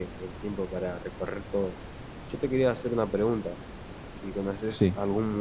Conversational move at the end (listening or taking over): listening